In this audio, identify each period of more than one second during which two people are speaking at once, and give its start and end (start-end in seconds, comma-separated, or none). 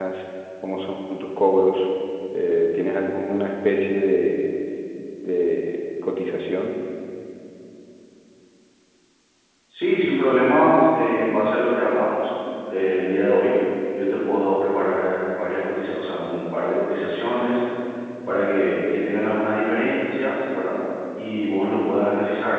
none